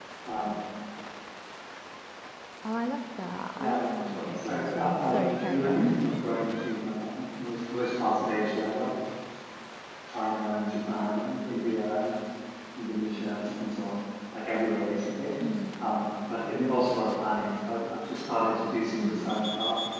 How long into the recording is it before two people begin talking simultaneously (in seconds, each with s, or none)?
3.6 s